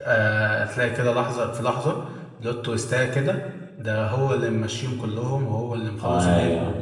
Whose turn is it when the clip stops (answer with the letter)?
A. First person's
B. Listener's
A